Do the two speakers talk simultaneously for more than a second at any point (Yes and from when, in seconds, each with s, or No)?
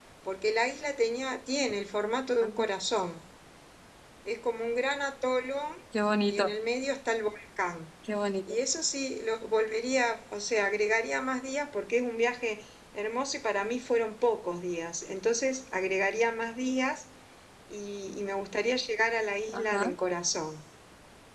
No